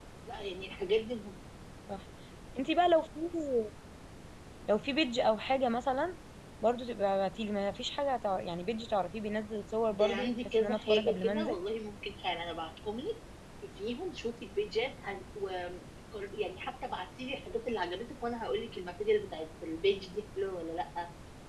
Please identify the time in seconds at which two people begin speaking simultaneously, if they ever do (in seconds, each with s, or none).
9.9 s